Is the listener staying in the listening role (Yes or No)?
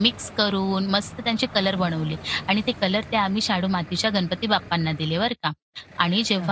Yes